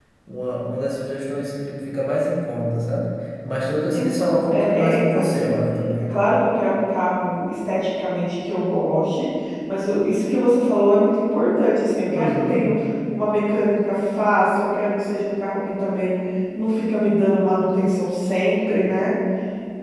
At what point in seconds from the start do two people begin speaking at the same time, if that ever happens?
3.9 s

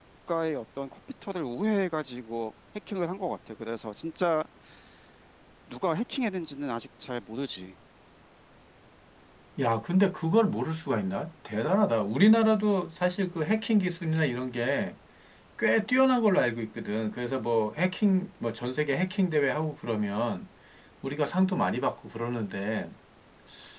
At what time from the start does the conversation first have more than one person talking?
none

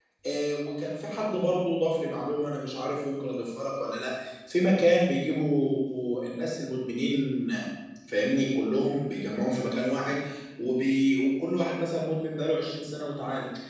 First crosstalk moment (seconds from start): none

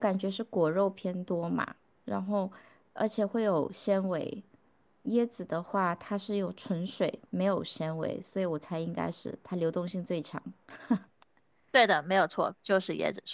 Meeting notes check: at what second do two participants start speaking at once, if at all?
none

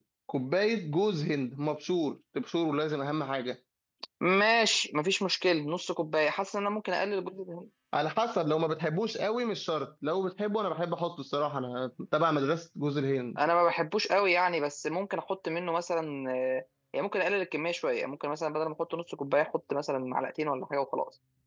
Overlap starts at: none

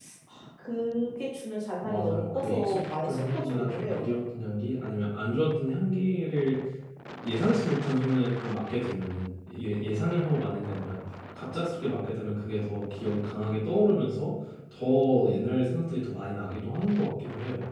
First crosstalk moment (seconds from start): 1.8 s

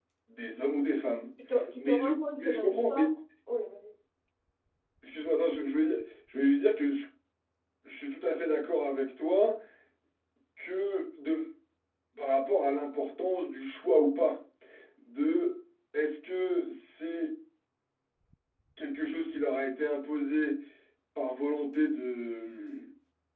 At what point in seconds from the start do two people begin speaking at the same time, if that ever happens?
1.7 s

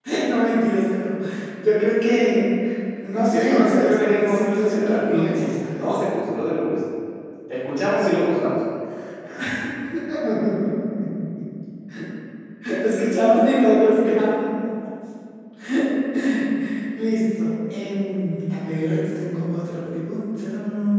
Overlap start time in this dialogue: 3.3 s

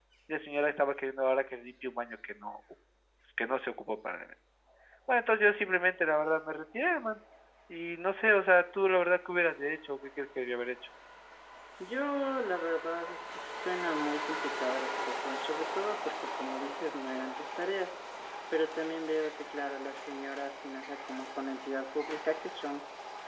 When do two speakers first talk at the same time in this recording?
none

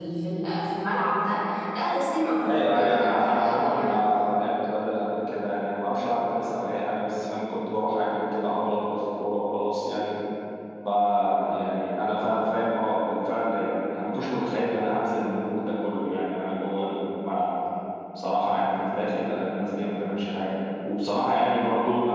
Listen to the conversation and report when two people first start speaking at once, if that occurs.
2.4 s

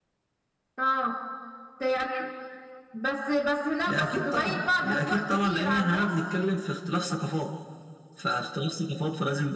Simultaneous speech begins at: 3.9 s

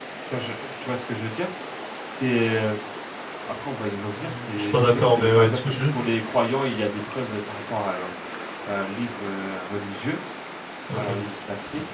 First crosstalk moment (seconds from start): 4.2 s

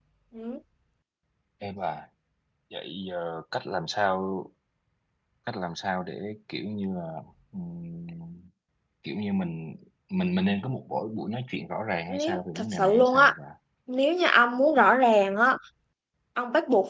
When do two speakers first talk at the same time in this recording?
12.1 s

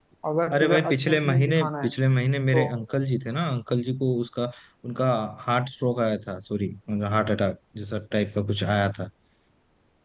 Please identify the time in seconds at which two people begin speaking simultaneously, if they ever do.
0.5 s

